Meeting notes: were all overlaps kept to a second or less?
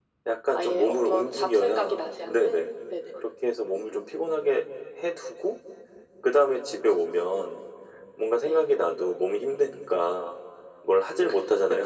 No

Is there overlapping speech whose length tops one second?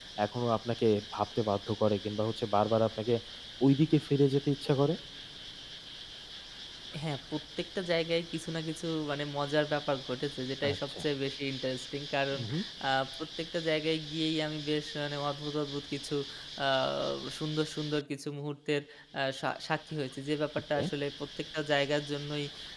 No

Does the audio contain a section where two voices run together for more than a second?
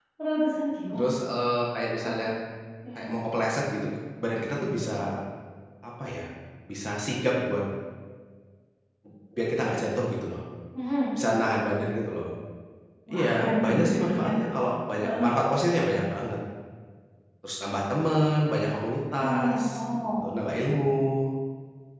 Yes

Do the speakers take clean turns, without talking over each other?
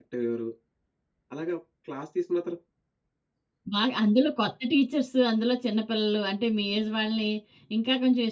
Yes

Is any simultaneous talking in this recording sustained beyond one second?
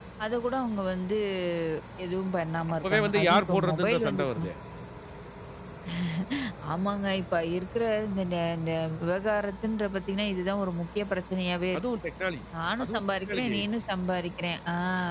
Yes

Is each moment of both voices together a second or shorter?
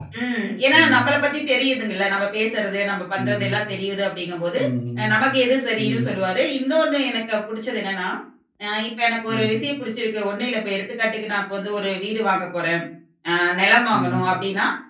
Yes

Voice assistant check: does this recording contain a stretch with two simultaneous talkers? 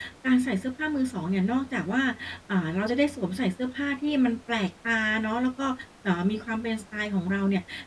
No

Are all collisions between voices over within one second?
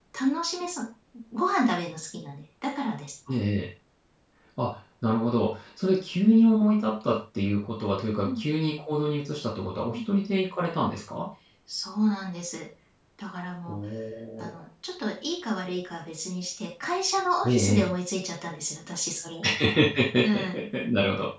Yes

